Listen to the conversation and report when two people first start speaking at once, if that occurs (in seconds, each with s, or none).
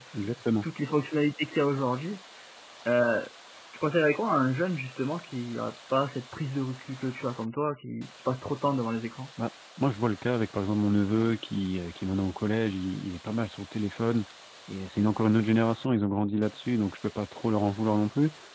none